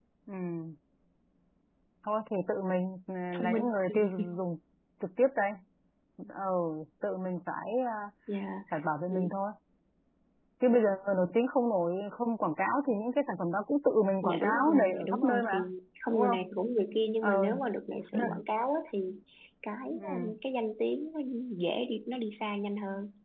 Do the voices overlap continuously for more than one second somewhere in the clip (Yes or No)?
Yes